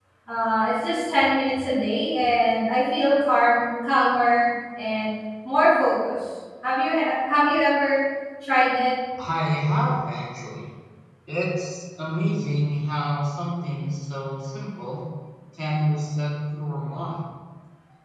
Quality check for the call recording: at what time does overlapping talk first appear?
none

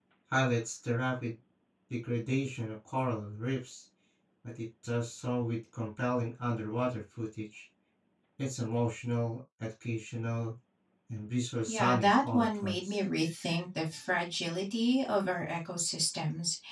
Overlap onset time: 11.7 s

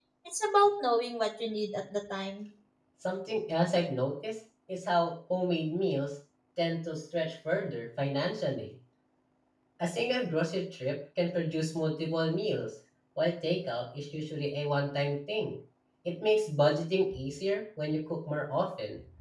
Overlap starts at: none

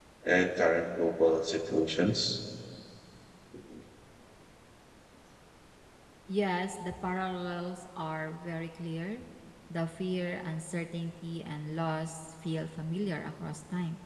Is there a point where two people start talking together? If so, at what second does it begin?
none

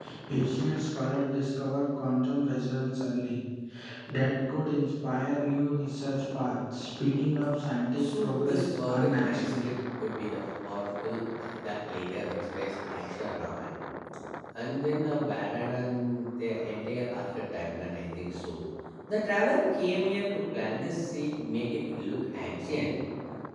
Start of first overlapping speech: 8.0 s

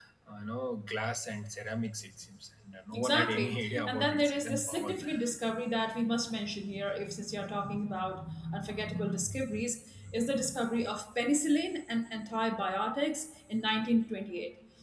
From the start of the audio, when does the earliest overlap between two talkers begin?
2.9 s

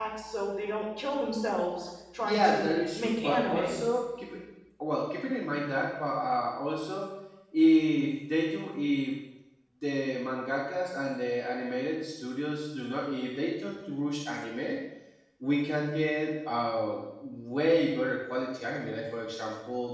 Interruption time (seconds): 2.2 s

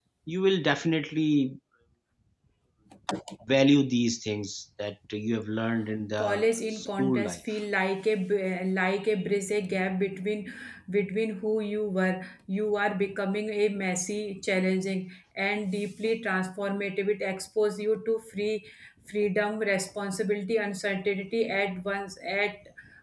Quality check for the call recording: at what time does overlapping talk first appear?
6.2 s

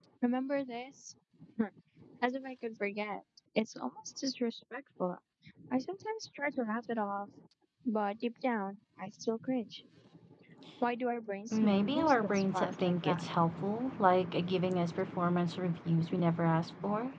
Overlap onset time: 11.5 s

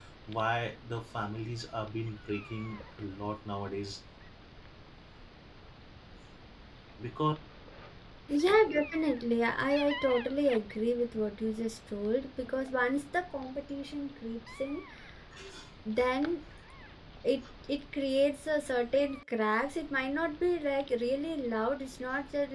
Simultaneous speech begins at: none

